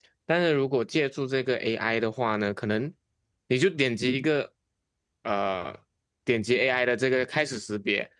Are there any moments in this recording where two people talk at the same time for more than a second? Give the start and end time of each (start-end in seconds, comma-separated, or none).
none